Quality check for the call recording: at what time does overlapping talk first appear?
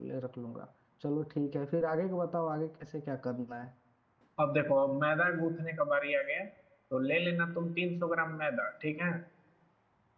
none

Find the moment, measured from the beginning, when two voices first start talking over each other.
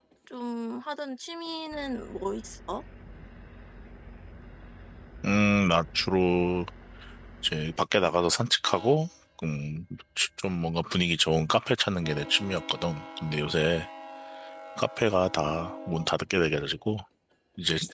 none

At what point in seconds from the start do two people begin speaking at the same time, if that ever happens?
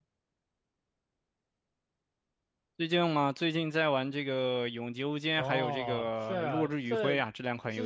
5 s

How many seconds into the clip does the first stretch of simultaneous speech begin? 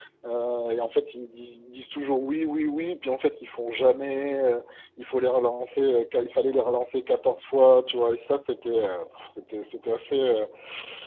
none

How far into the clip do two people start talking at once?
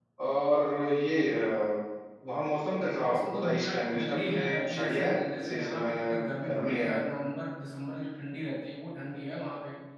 3 s

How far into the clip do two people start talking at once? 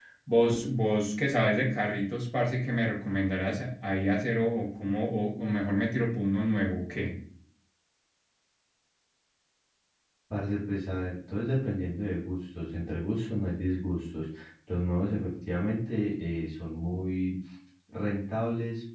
none

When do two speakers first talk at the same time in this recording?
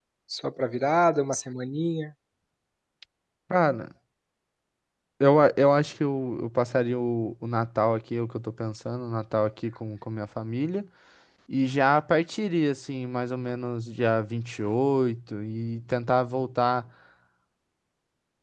none

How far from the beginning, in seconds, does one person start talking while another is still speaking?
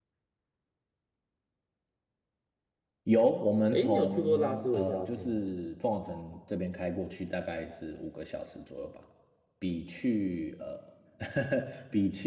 4 s

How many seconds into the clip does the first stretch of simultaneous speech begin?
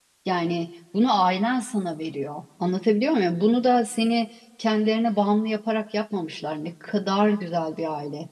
none

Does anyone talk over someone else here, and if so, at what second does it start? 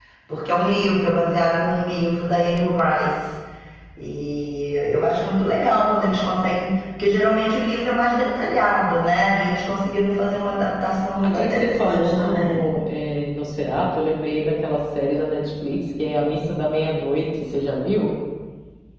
11 s

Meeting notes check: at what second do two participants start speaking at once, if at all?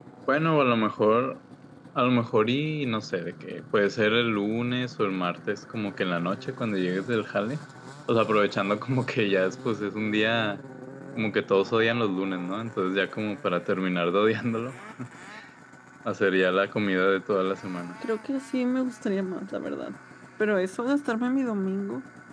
none

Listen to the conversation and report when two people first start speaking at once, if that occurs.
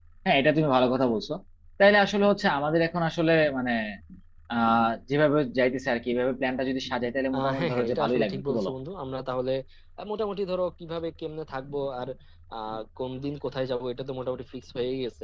7 s

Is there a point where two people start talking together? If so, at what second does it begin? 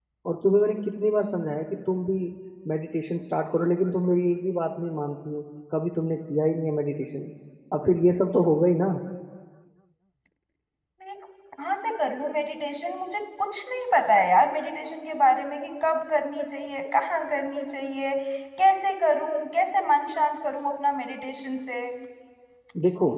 none

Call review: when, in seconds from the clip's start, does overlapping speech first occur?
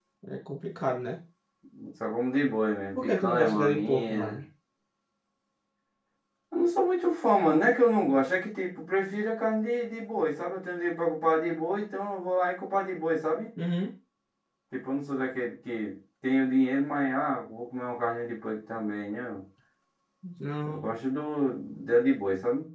3 s

